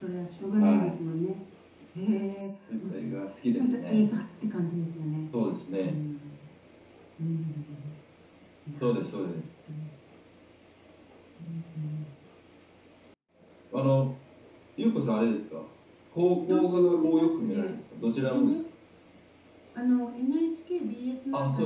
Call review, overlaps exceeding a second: present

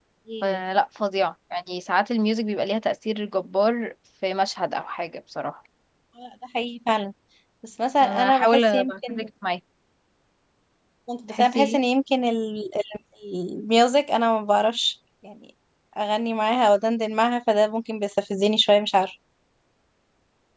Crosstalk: present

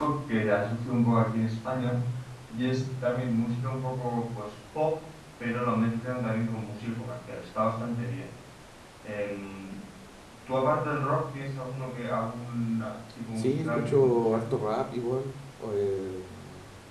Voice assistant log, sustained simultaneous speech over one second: present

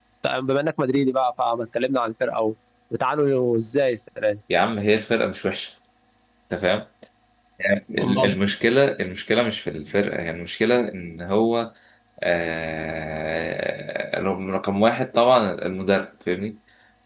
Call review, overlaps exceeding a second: none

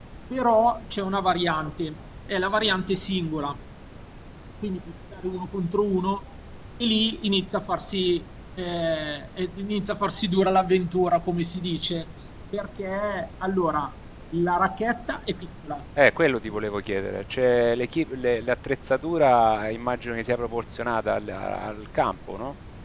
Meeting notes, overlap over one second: none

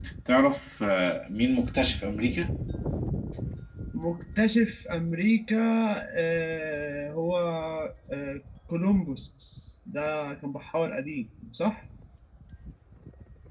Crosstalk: none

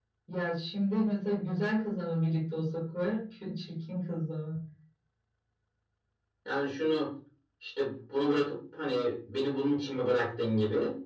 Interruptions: none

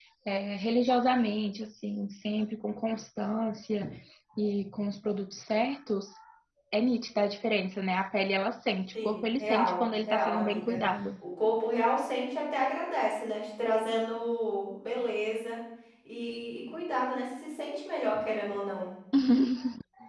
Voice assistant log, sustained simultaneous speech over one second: present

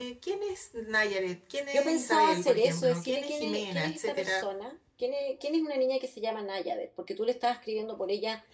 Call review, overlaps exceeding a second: present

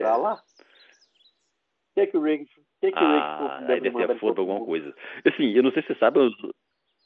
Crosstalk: present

